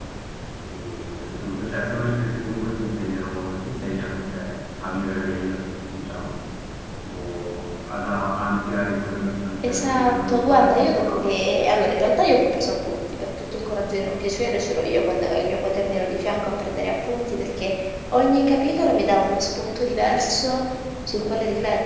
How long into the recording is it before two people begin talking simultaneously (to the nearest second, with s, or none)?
10 s